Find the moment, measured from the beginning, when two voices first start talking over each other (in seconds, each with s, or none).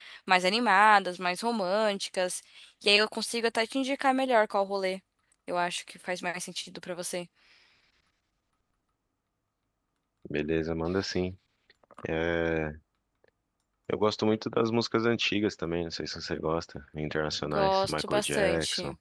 17.4 s